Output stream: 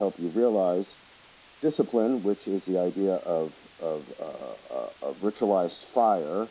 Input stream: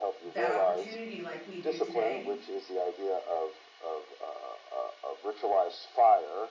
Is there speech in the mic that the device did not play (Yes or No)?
Yes